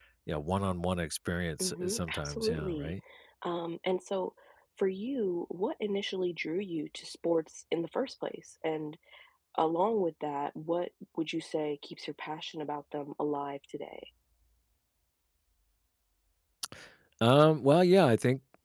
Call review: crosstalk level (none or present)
present